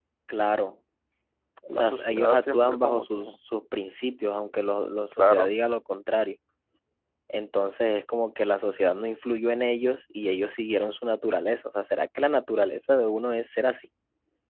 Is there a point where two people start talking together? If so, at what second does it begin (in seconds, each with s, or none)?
1.7 s